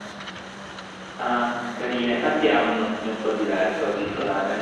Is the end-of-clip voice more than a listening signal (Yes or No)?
Yes